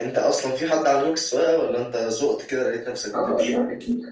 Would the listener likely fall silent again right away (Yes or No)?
No